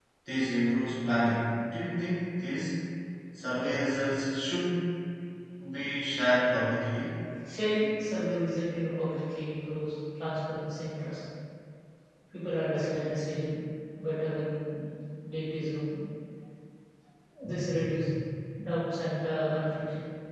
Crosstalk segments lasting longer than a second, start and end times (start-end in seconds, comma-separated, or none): none